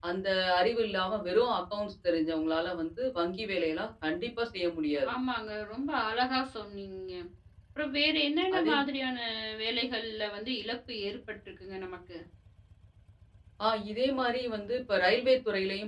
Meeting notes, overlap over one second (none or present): none